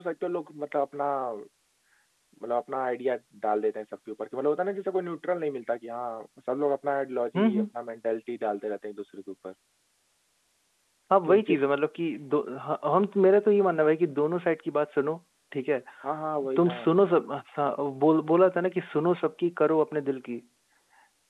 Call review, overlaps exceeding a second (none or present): none